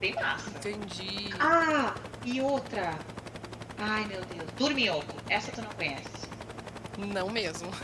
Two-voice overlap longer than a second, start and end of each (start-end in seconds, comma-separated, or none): none